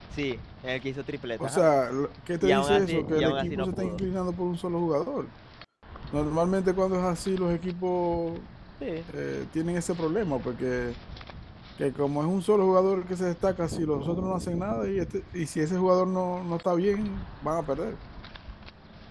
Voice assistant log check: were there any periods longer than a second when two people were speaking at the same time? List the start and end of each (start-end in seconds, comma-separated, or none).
2.4-4.0